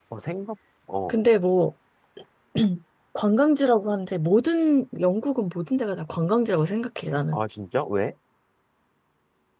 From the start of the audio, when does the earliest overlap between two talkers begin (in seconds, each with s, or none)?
none